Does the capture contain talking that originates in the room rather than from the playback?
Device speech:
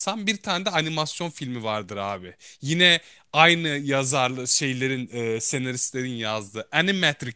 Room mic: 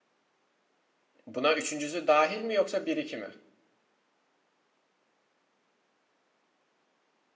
Yes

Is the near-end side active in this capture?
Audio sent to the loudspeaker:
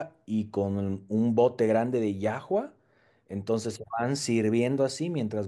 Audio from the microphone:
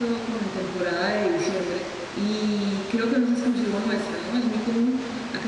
Yes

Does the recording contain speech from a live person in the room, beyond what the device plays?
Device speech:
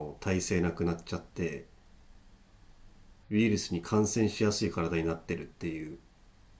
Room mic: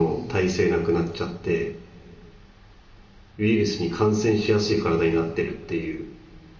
No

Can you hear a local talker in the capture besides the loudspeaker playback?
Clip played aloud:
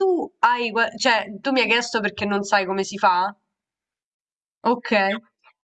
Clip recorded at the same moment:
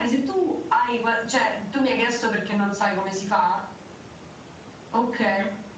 No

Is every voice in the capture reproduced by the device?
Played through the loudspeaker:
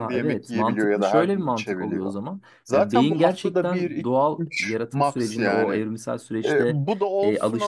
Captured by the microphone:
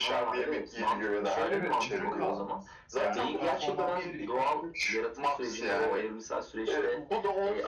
No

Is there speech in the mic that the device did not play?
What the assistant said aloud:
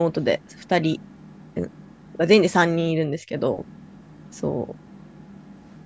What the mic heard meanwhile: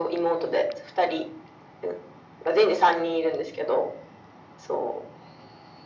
No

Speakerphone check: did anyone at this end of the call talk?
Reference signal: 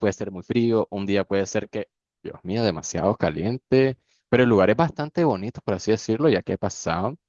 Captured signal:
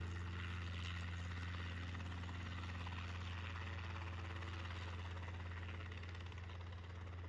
No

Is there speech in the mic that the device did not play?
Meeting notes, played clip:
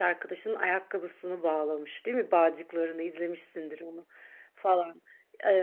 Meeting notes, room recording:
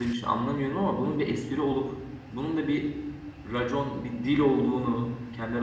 Yes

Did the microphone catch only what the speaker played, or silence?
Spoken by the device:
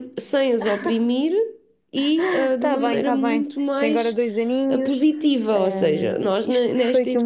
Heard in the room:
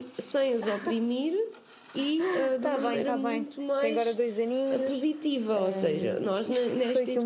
Yes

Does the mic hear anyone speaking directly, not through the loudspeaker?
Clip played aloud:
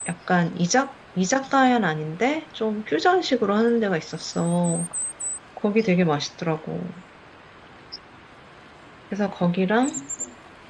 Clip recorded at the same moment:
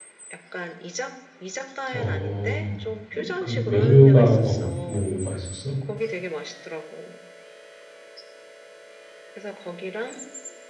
Yes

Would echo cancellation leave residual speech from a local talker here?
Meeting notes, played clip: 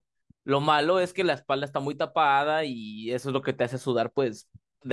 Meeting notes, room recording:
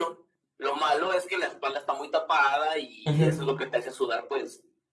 Yes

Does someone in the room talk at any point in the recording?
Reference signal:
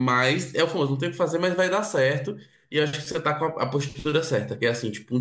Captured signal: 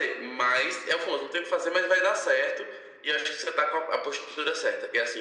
No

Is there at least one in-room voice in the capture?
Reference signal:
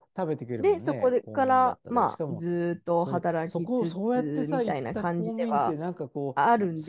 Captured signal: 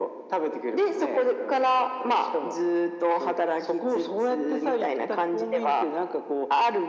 No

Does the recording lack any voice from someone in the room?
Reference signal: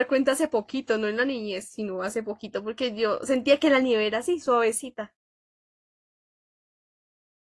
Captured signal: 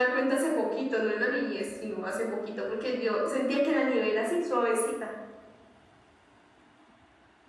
Yes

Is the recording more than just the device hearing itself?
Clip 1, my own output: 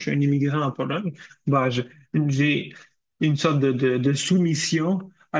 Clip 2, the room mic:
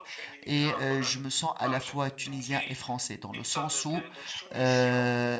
Yes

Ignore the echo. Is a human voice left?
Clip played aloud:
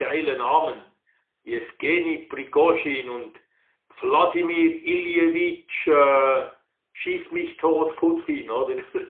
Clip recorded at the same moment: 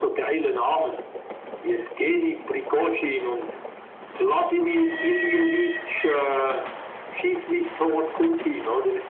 No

